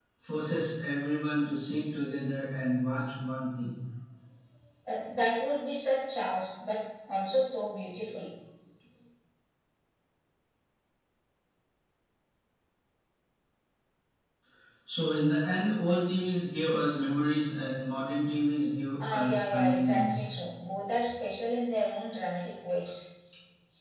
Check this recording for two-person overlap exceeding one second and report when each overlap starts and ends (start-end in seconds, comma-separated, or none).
19.0-20.4